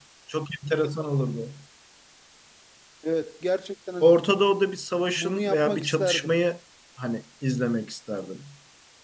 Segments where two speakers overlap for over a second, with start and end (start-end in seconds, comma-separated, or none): 5.1-6.4